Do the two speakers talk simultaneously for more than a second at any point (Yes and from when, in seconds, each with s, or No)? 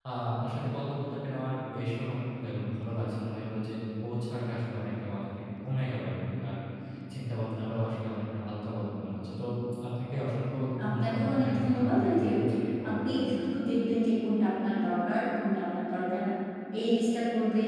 Yes, from 10.8 s